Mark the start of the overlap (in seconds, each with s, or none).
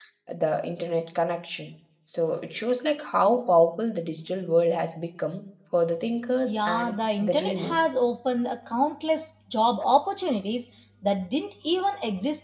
6.5 s